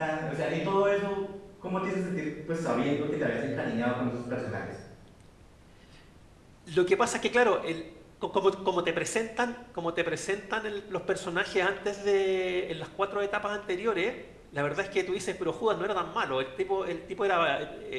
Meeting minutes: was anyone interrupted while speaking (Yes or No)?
No